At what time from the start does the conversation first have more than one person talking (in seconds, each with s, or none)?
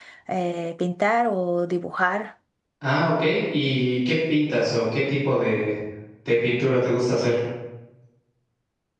none